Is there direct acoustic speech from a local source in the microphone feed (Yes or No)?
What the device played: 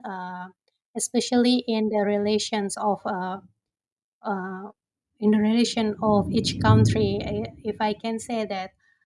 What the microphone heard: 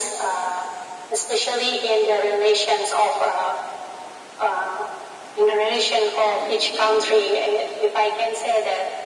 No